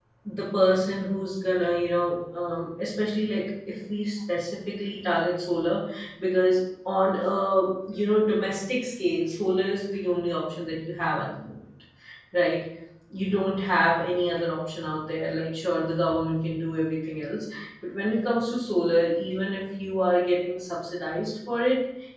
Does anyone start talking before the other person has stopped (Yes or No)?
No